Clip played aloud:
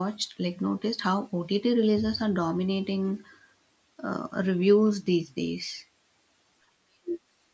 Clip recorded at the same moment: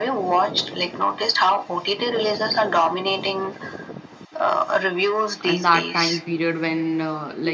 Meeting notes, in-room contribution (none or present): present